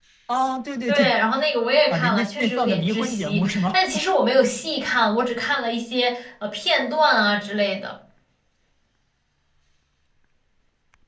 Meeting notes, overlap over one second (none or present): present